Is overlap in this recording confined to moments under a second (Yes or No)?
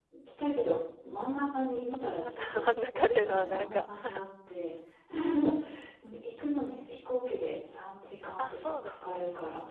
No